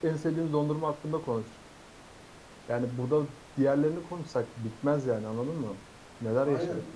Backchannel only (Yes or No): No